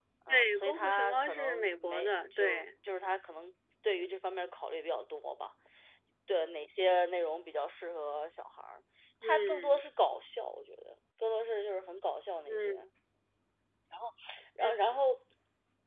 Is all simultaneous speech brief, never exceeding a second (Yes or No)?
No